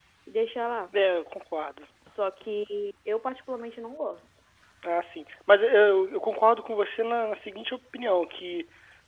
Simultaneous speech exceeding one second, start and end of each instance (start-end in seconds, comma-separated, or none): none